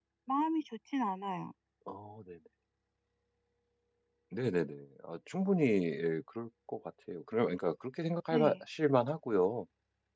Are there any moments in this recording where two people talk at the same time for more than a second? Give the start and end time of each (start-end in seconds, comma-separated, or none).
none